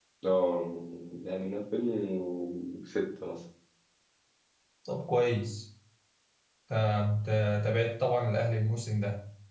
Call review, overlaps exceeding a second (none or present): none